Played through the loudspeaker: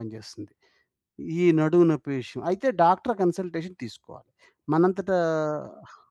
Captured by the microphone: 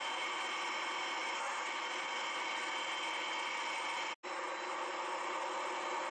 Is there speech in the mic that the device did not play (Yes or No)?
No